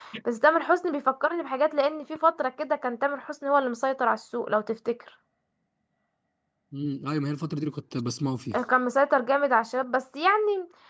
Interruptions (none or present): none